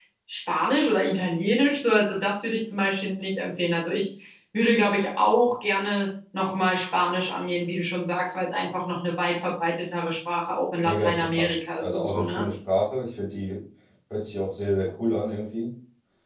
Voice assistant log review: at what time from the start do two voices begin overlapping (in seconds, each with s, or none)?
10.8 s